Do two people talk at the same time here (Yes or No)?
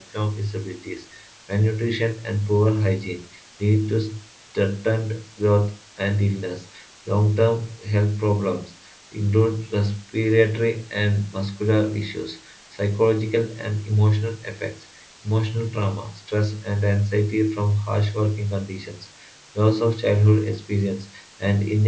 No